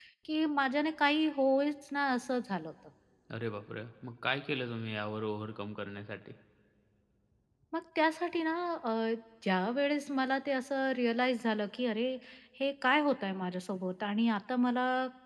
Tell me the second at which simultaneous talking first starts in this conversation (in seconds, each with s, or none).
none